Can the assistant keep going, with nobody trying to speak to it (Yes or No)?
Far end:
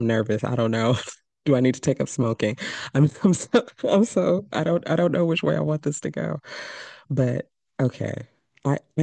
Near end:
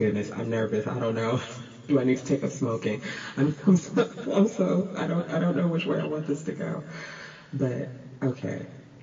Yes